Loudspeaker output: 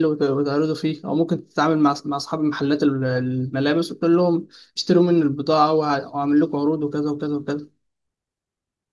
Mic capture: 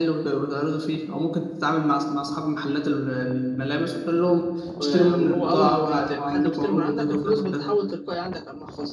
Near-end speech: present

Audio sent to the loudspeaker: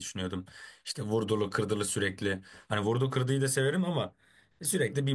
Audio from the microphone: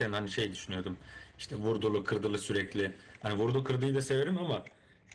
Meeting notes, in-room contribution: none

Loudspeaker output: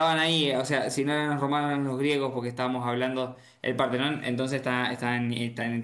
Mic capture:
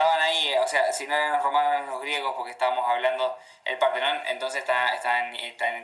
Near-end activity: none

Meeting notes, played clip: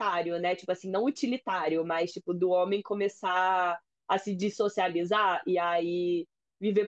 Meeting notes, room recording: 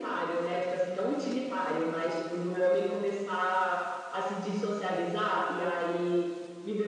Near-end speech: none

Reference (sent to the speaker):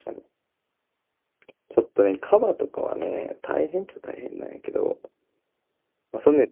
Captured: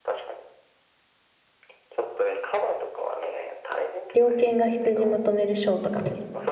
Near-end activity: present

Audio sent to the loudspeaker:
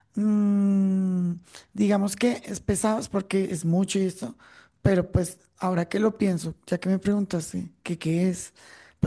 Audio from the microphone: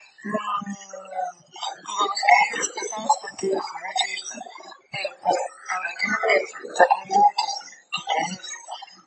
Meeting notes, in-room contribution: none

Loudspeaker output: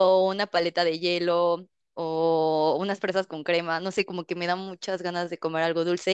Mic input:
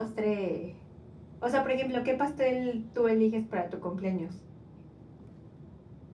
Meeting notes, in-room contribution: present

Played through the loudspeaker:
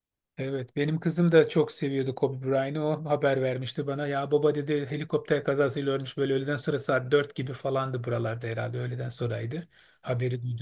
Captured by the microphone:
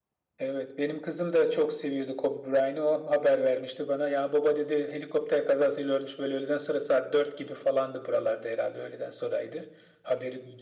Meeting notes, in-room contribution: none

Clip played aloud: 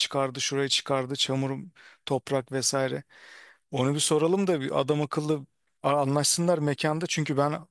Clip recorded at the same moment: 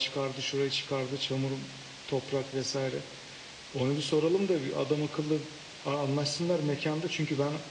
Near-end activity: none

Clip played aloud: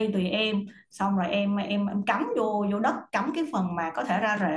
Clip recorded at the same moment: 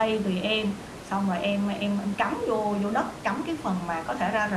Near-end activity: none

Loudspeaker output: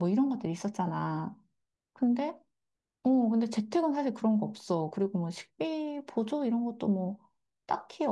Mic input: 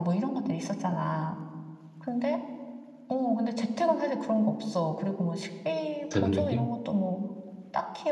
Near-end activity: present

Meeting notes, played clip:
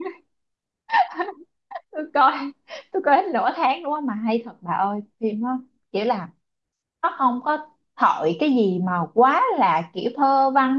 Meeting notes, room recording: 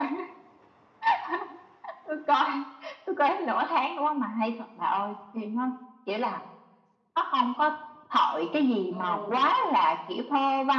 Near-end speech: present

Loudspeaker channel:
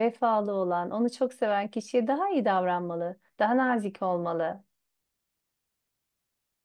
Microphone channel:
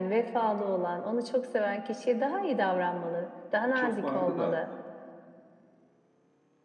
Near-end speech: present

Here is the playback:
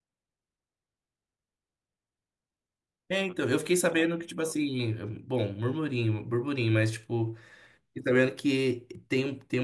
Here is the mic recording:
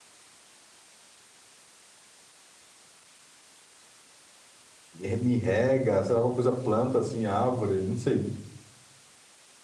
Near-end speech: present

